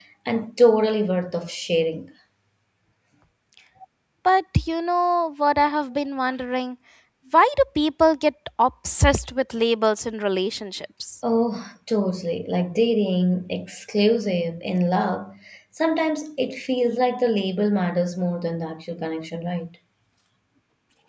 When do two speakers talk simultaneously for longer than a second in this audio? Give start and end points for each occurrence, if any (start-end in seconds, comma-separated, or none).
none